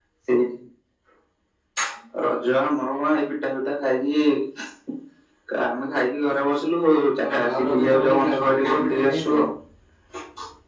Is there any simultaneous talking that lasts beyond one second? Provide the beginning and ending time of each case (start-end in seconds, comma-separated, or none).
7.3-9.4